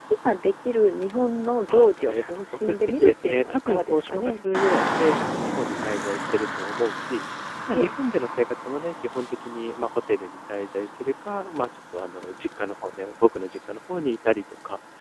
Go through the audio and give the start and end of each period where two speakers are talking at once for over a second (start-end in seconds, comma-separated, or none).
1.7-4.4